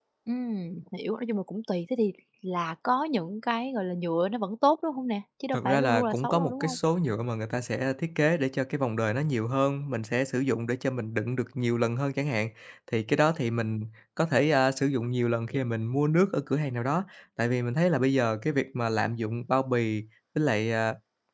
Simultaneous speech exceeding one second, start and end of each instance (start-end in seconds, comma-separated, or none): 5.5-6.8